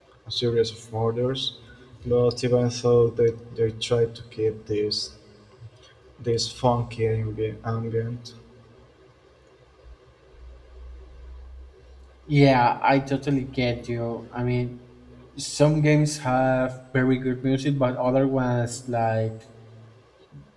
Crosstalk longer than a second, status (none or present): none